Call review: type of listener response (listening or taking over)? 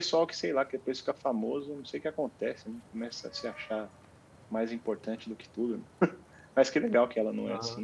listening